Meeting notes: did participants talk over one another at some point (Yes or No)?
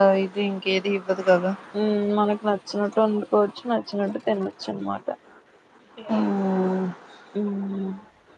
No